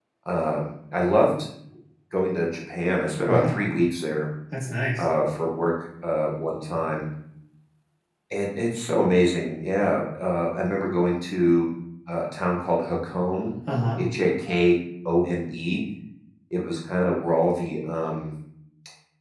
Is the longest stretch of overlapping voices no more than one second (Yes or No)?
Yes